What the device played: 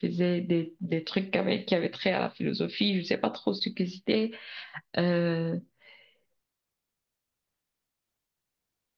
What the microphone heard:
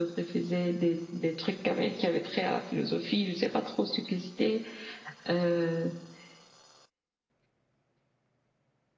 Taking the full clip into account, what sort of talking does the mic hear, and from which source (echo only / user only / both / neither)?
echo only